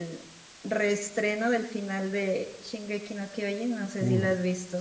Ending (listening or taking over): taking over